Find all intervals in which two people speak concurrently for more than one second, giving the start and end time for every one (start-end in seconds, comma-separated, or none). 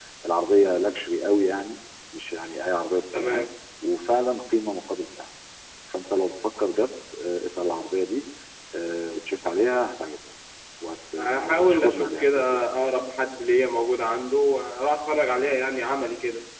11.2-12.6